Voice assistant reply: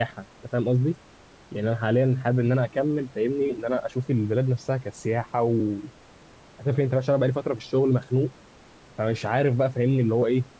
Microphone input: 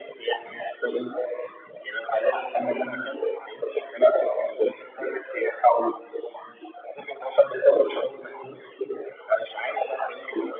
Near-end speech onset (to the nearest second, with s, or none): none